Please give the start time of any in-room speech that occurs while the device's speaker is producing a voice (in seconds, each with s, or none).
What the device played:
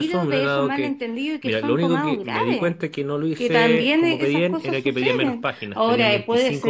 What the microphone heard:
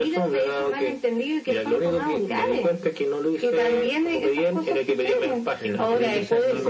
5.5 s